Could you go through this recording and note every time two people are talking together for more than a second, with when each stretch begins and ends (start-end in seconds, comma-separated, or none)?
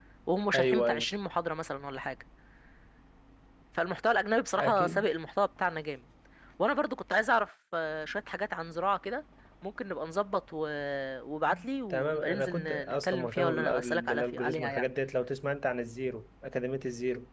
11.9-14.9